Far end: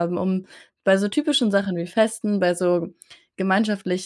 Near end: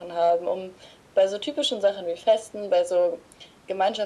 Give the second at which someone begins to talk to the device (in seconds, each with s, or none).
none